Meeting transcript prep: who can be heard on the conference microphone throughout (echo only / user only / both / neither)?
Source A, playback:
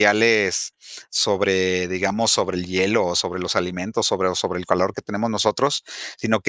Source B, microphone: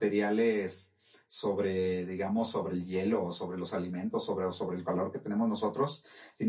echo only